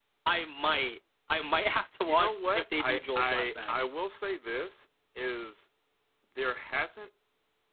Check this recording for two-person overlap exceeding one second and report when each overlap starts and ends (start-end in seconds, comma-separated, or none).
2.0-3.9